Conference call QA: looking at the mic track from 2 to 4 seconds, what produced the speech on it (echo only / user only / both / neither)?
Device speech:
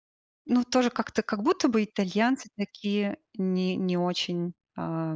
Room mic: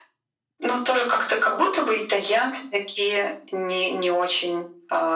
echo only